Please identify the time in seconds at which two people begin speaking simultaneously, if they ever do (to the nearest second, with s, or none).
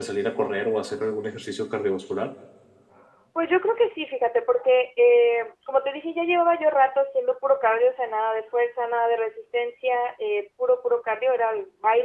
none